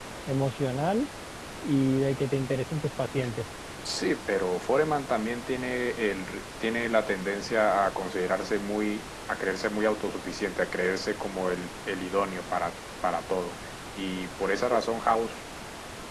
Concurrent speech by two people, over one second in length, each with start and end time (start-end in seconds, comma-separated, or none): none